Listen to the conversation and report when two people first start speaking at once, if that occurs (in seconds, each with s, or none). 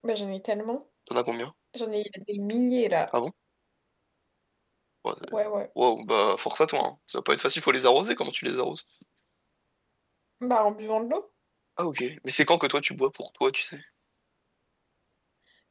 none